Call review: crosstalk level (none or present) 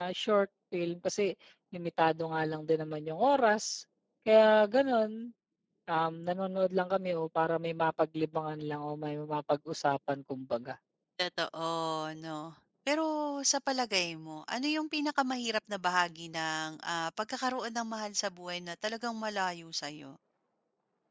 none